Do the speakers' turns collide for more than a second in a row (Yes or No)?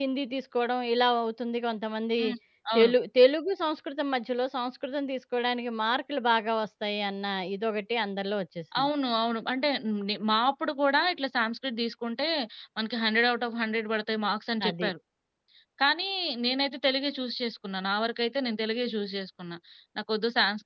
No